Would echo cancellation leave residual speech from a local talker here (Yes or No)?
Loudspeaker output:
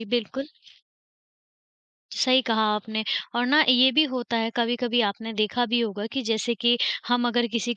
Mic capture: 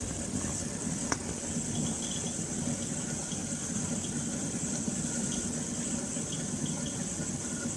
No